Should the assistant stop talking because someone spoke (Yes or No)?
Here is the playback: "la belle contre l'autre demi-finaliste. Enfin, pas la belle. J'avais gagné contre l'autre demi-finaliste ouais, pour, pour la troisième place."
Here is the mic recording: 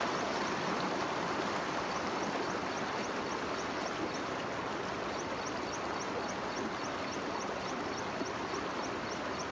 No